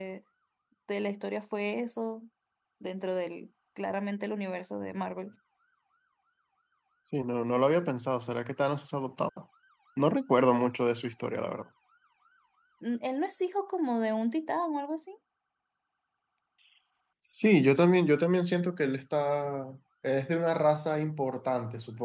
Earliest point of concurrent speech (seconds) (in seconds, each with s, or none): none